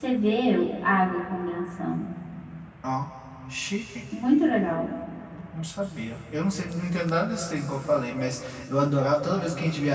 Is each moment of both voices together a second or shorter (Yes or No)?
Yes